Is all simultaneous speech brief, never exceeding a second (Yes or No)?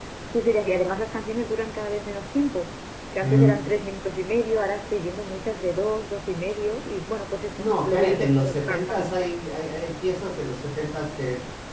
No